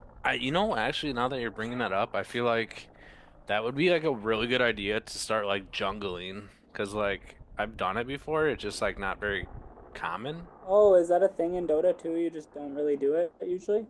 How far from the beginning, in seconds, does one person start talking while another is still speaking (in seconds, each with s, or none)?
none